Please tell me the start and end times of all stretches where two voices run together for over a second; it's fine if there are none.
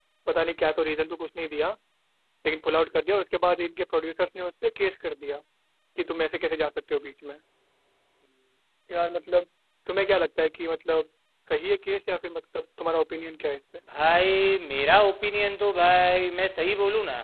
none

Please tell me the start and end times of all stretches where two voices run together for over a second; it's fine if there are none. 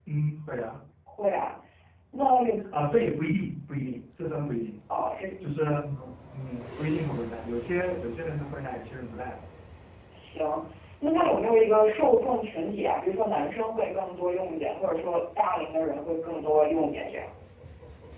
none

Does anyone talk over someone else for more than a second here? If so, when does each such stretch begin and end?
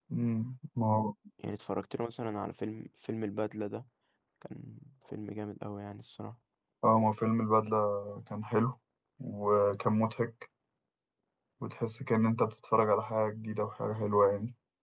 none

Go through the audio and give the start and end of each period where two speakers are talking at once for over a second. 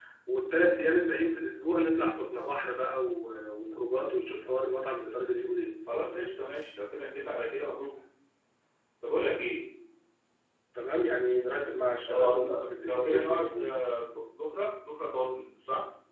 12.1-13.7

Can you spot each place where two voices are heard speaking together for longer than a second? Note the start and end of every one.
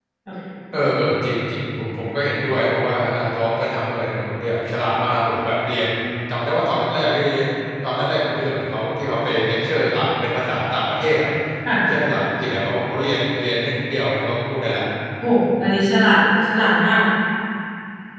none

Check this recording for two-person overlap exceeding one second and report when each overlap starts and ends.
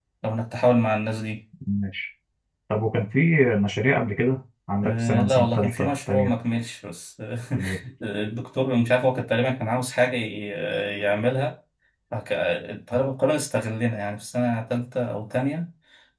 4.8-6.3

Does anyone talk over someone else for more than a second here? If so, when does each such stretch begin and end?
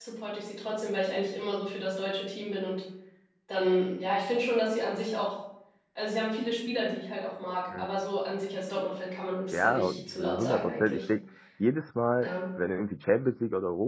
9.5-11.1

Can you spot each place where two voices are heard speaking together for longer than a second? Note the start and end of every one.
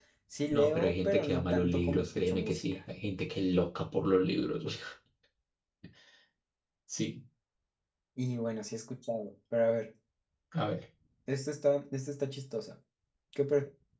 0.5-2.8

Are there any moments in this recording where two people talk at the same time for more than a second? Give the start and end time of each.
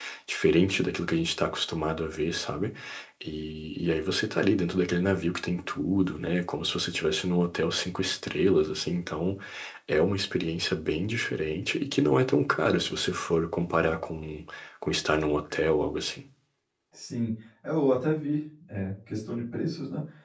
none

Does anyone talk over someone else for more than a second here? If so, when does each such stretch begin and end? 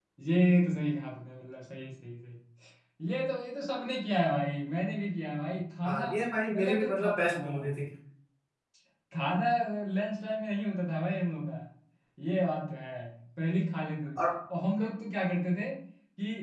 6.5-7.7

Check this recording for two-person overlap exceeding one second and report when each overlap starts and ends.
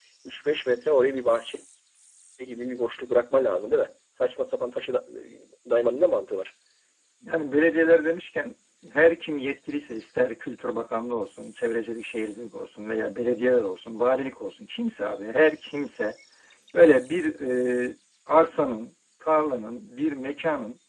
none

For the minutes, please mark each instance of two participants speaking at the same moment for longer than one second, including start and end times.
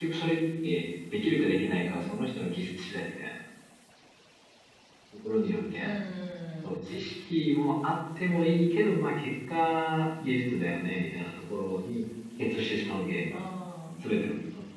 none

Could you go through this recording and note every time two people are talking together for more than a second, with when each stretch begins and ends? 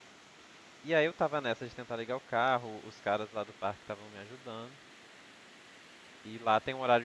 none

